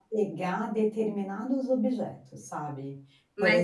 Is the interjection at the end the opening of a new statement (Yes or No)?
Yes